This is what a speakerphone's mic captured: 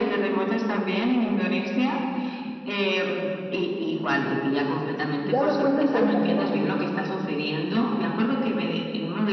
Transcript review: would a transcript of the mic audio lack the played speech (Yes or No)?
No